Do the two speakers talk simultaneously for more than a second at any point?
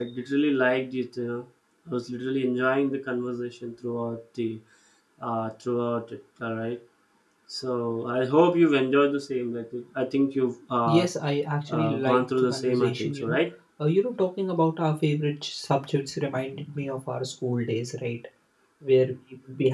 Yes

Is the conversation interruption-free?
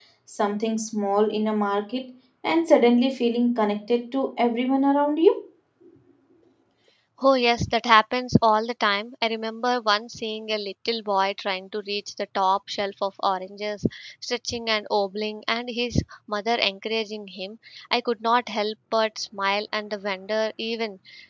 Yes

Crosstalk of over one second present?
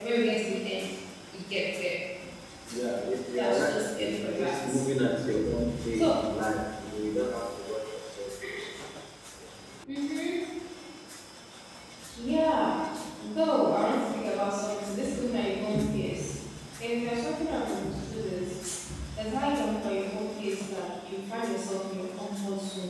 Yes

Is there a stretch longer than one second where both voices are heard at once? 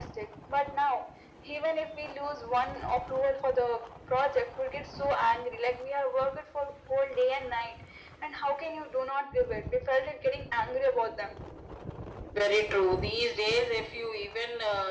No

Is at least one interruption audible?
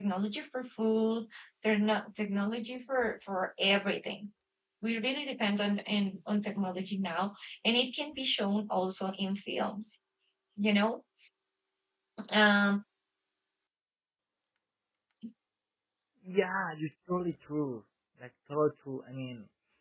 No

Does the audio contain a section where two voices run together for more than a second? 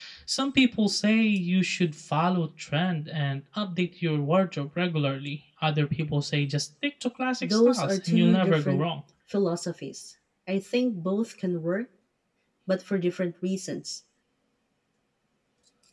Yes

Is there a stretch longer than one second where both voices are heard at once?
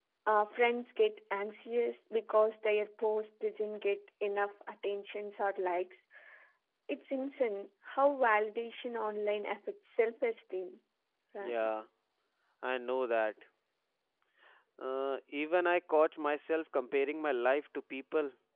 No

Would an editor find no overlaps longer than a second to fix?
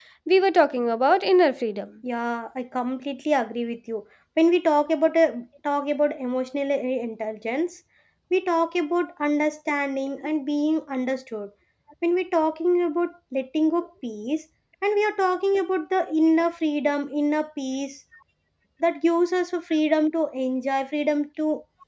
Yes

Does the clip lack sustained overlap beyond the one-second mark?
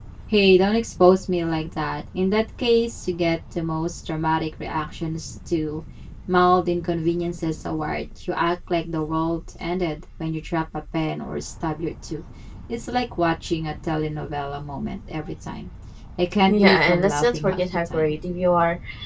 No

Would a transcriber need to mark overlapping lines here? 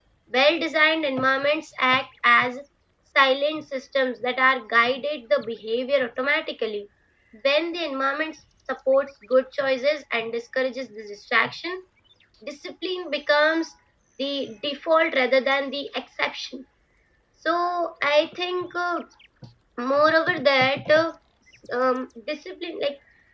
No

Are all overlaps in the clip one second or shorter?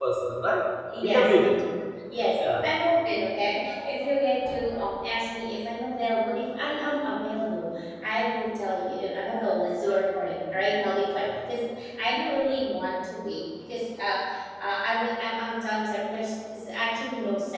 Yes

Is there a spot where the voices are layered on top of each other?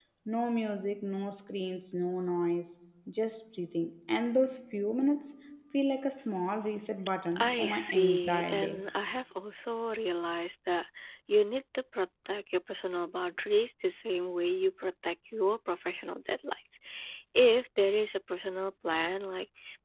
Yes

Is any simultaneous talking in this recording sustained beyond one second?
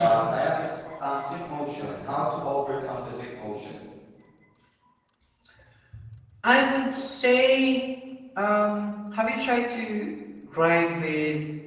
No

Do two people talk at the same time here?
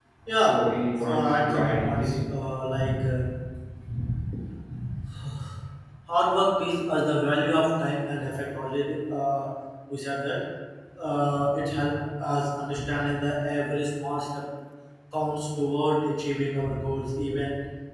Yes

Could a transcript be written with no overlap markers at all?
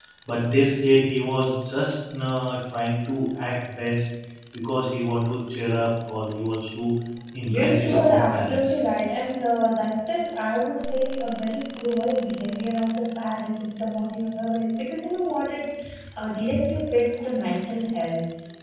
No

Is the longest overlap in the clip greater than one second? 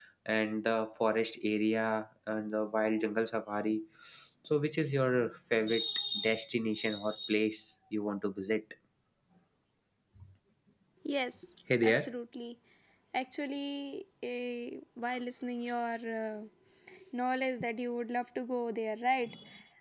No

